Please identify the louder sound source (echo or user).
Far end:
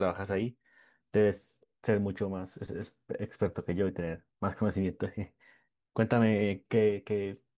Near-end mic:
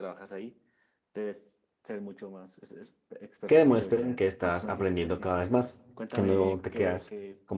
user